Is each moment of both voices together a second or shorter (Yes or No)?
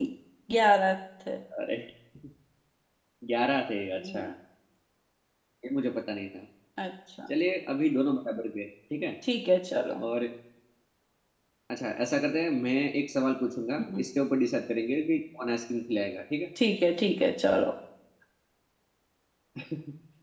Yes